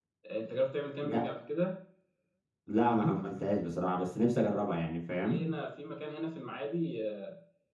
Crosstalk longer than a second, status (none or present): none